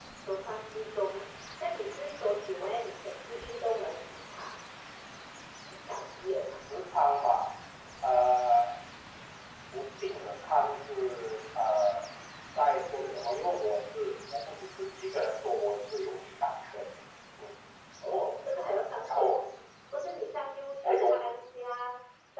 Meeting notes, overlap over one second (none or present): none